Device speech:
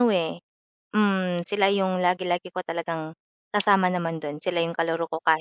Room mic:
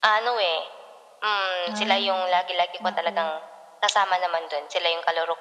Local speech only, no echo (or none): Ay, naku.